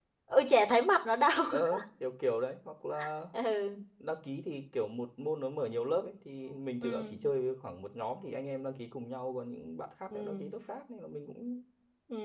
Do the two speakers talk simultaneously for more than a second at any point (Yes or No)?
No